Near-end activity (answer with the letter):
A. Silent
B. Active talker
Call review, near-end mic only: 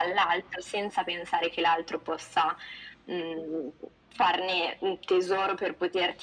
A